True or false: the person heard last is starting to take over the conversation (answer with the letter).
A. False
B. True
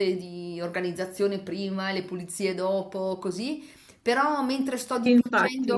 A